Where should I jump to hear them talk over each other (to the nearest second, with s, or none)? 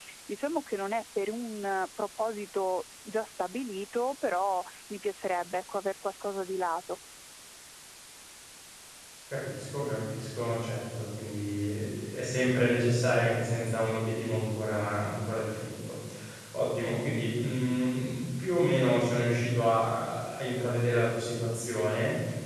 none